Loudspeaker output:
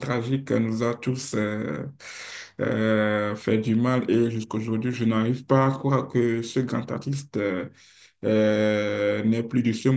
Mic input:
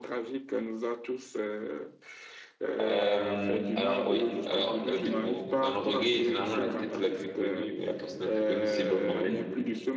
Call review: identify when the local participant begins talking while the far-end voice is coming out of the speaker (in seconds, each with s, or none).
2.8 s